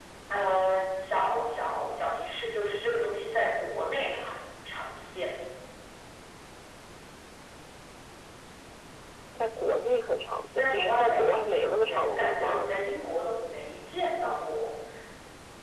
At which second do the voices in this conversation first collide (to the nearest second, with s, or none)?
11 s